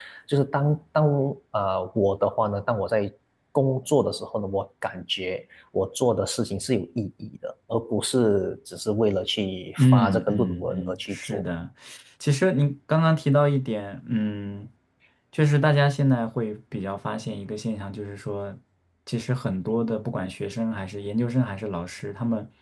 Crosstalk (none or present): present